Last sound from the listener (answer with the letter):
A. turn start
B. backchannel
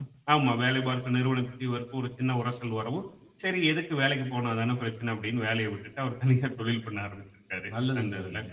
A